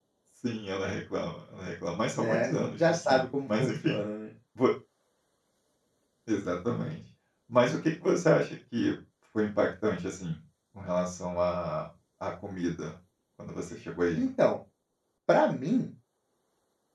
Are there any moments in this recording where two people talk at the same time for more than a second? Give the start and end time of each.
2.2-4.0

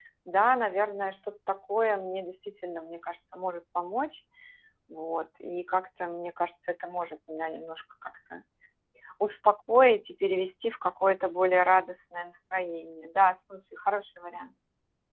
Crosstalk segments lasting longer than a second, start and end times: none

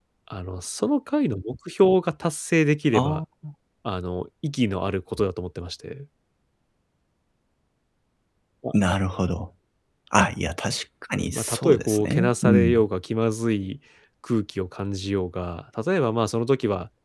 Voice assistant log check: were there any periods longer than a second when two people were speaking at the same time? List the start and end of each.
11.3-12.8

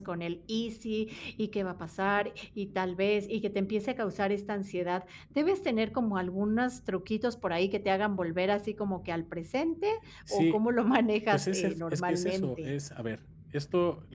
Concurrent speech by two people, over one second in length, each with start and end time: 11.3-12.7

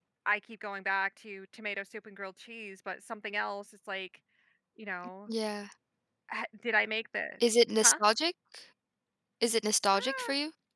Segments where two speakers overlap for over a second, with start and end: none

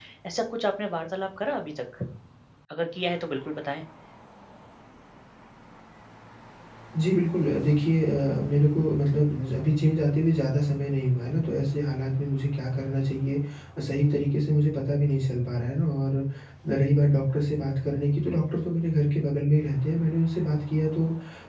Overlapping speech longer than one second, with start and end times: none

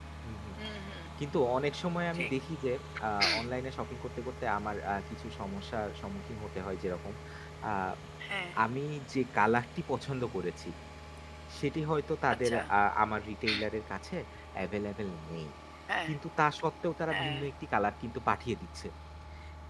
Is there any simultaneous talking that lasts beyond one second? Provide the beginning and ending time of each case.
none

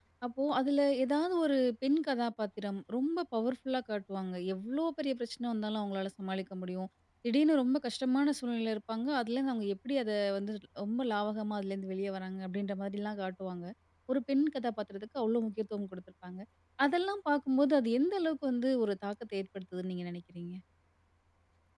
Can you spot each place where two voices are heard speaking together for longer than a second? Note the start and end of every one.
none

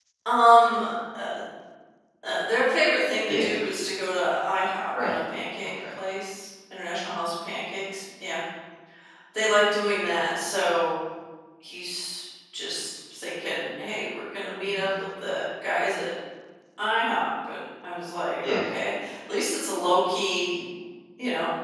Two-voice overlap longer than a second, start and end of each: none

